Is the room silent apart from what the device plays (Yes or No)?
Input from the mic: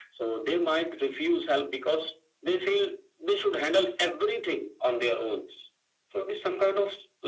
Yes